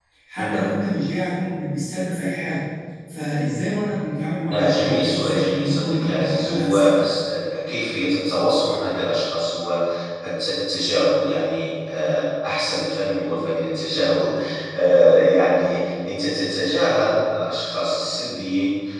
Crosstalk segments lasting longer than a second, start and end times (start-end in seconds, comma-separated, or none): 4.5-6.9